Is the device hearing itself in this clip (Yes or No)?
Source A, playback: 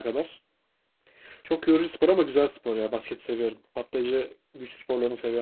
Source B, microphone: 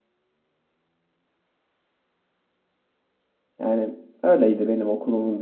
No